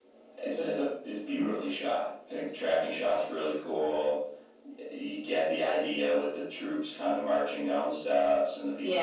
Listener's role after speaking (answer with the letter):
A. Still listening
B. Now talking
B